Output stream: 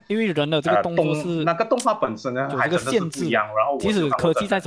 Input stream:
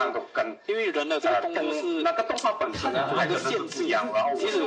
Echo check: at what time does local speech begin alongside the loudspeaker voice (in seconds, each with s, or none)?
2.7 s